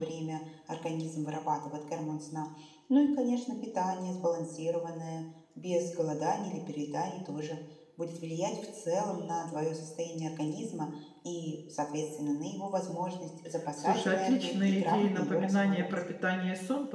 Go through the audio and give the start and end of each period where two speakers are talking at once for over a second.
13.8-15.9

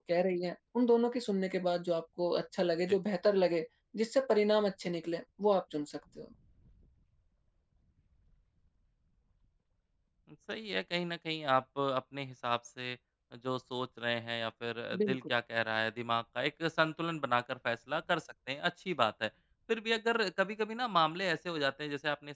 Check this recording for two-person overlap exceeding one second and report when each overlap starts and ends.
none

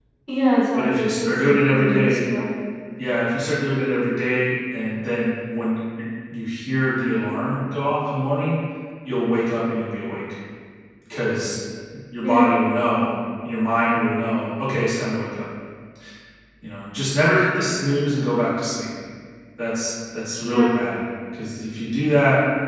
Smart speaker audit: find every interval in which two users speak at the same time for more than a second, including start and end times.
0.7-2.2

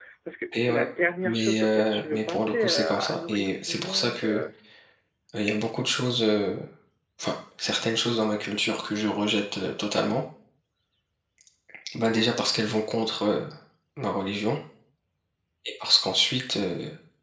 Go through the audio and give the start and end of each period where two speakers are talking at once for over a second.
1.2-4.4

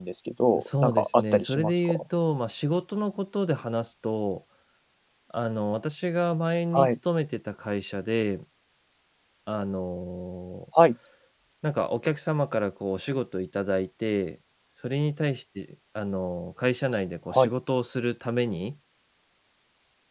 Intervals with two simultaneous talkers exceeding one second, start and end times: 0.5-1.9

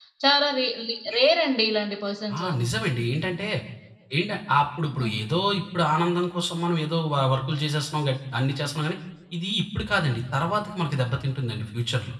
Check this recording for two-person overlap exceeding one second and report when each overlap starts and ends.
none

